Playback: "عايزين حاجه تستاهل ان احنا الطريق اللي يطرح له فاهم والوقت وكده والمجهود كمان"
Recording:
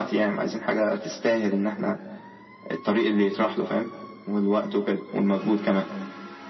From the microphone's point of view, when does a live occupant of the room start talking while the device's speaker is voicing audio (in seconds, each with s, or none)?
none